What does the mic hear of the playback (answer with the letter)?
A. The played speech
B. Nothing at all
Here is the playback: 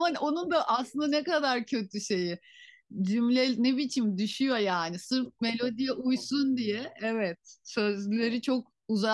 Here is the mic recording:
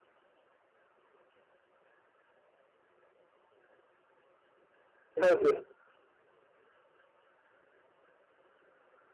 B